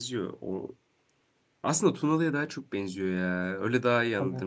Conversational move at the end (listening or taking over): listening